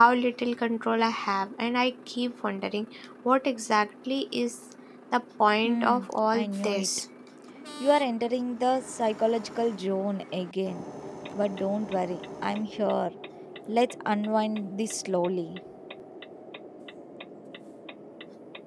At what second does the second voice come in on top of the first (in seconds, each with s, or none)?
5.6 s